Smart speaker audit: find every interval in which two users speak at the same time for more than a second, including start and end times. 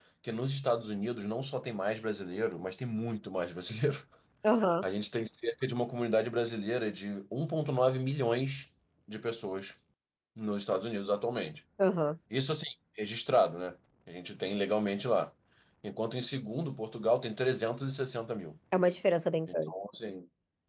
none

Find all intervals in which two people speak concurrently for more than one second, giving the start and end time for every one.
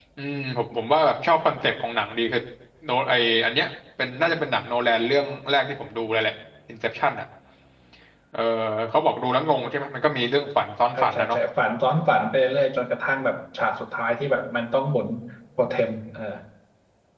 none

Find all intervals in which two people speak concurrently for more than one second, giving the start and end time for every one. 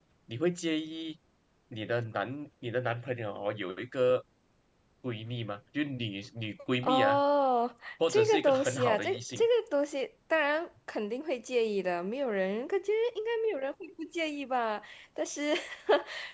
8.1-9.5

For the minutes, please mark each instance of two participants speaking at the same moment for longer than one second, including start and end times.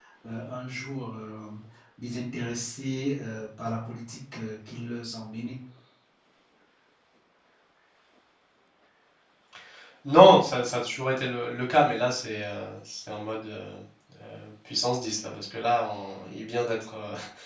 none

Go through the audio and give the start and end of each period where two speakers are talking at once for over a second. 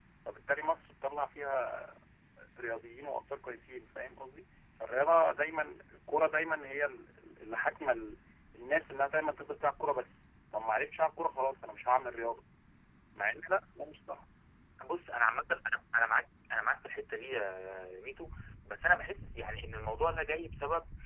none

